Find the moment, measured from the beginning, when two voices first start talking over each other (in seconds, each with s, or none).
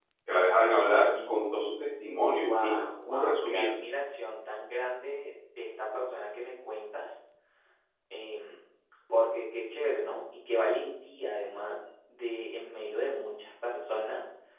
2.4 s